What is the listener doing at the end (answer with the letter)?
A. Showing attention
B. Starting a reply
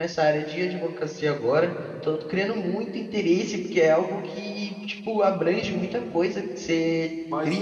B